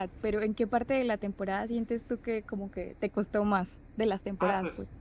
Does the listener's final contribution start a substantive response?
Yes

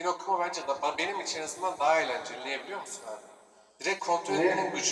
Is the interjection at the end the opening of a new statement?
No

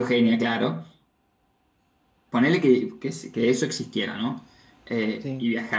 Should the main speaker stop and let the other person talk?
No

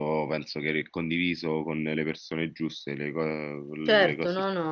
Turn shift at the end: Yes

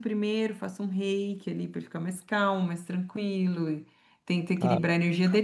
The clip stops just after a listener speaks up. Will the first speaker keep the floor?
Yes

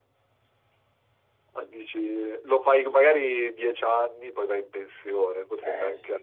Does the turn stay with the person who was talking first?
Yes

